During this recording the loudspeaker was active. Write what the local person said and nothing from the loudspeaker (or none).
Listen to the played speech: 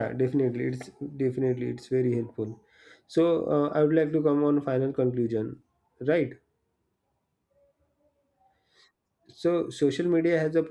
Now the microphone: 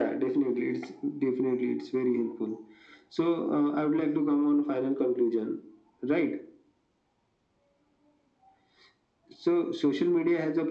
none